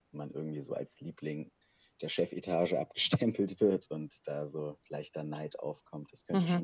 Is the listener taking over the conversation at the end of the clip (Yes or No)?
Yes